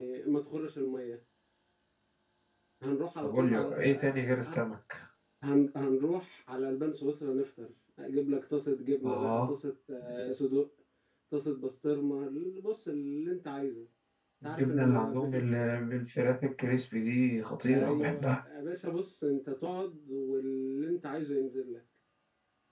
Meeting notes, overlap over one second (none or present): present